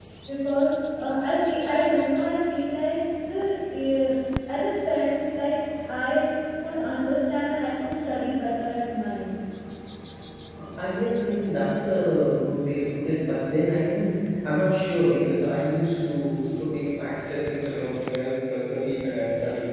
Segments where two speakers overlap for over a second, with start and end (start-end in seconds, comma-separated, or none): none